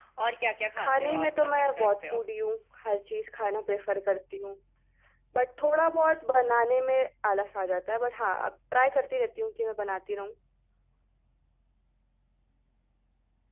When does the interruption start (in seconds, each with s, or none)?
0.8 s